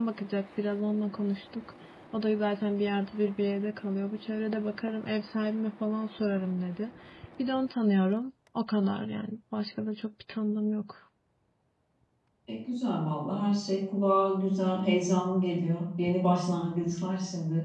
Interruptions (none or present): none